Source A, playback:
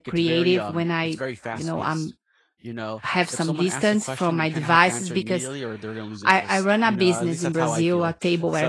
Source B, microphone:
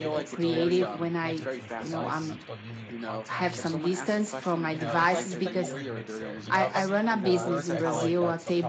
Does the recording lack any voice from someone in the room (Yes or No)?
No